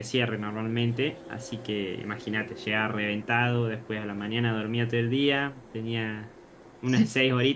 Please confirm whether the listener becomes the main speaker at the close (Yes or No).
No